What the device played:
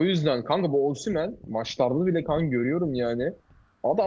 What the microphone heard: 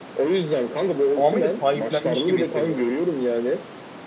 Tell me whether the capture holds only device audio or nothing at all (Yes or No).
No